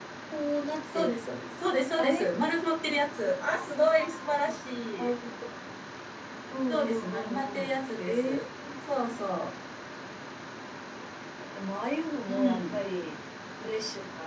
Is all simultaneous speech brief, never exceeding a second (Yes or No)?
No